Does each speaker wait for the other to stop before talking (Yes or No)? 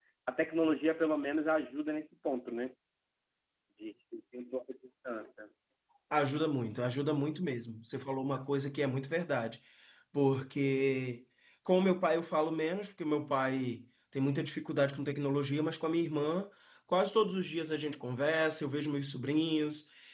Yes